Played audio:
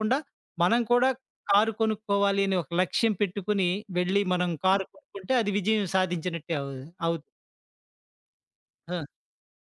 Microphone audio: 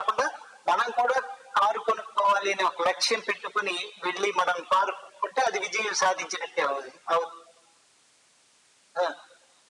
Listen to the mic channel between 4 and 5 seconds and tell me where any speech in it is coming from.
echo only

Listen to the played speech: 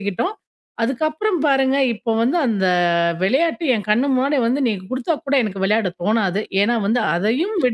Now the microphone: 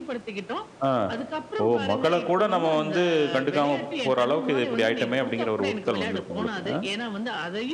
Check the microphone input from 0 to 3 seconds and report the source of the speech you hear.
both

